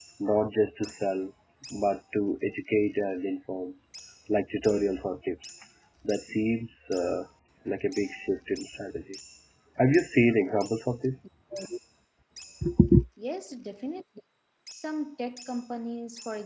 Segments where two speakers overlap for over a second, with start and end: none

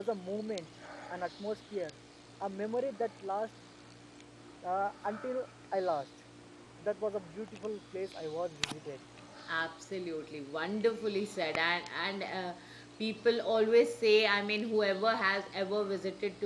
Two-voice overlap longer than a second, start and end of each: none

